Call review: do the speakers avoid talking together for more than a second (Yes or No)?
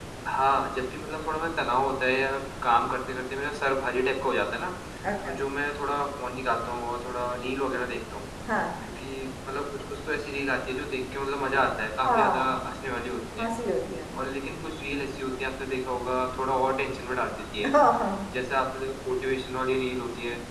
Yes